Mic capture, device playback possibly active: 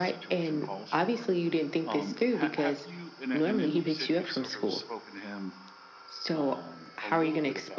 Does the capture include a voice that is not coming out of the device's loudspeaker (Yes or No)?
No